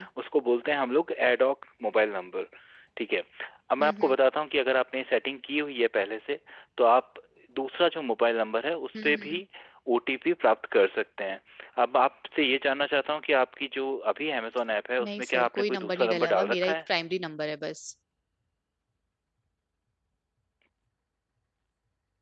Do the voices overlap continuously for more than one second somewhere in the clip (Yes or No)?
Yes